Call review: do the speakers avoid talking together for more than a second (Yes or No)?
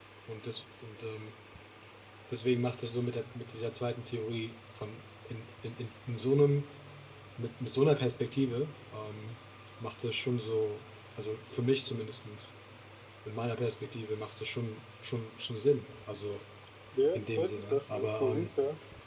No